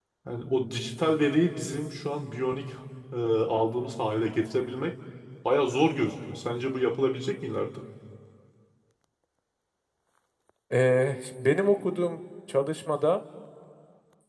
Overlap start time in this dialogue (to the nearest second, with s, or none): none